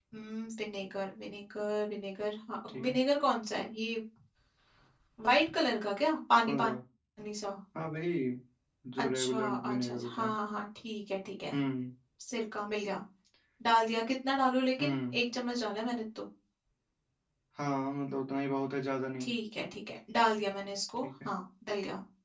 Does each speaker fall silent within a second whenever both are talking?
No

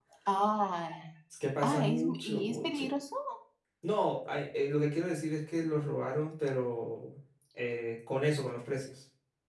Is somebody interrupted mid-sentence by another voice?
Yes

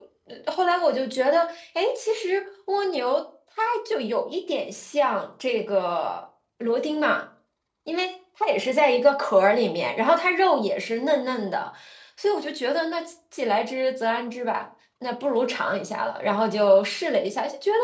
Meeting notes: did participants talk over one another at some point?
No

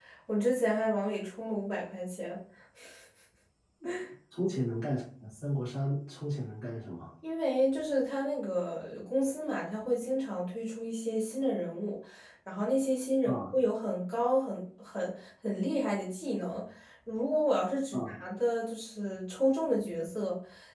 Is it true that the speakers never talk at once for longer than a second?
Yes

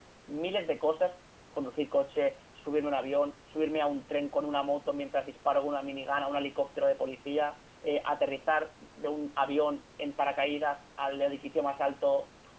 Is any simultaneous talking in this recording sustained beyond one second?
No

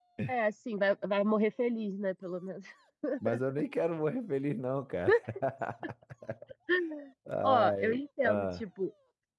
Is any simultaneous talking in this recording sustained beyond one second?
Yes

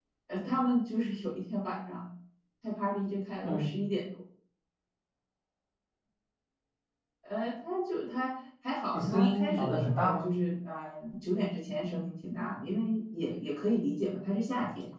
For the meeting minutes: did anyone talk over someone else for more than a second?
Yes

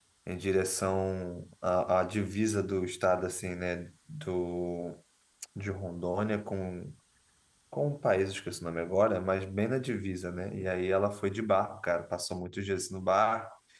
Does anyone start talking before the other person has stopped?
No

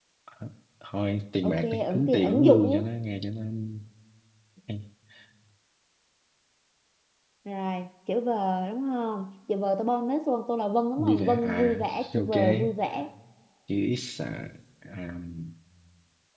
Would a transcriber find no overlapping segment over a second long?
No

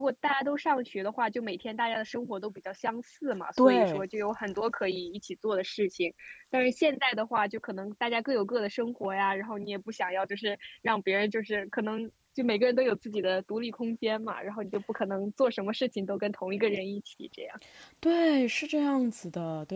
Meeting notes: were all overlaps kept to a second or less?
Yes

